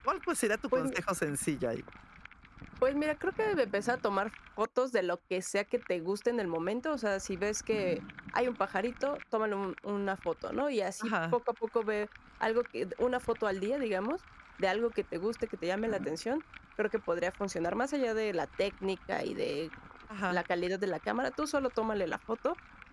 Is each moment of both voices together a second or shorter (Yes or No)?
Yes